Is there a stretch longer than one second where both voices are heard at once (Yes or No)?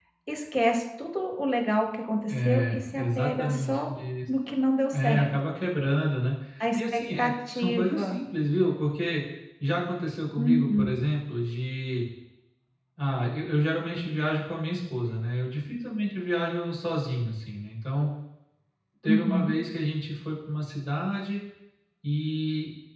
Yes